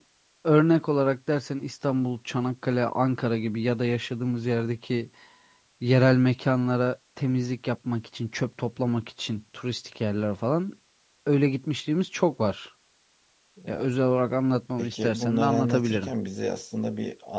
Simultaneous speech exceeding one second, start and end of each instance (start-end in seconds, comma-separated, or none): 14.8-16.1